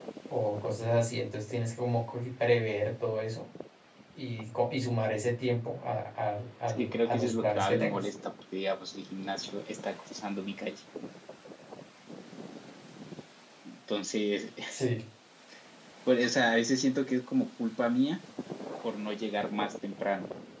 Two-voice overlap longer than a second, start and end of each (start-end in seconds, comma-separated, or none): 6.7-8.1